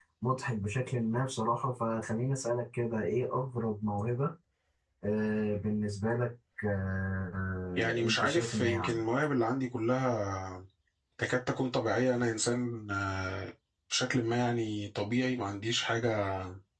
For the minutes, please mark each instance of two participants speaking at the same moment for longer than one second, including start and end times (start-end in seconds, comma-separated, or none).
7.8-9.0